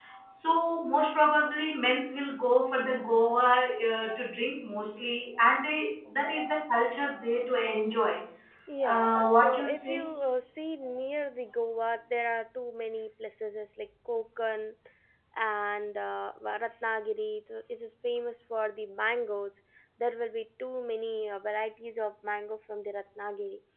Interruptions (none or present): present